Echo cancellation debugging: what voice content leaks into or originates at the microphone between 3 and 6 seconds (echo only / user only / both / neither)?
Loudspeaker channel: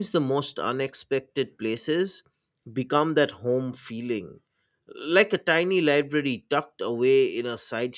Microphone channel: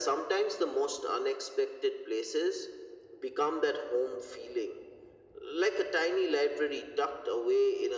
echo only